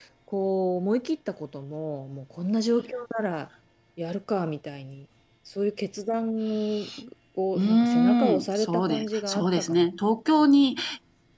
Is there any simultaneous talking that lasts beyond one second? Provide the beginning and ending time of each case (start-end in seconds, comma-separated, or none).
7.5-9.9